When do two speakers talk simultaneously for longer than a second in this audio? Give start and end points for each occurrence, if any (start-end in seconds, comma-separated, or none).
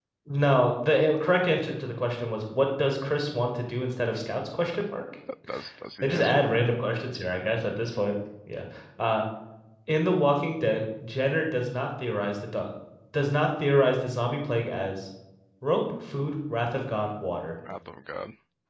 none